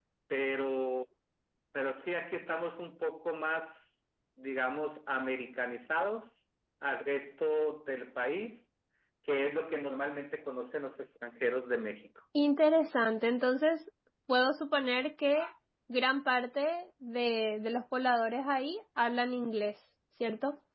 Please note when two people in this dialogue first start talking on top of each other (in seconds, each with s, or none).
none